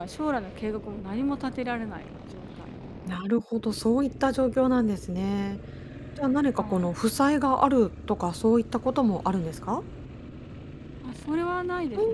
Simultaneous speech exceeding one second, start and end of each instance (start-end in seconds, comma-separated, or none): none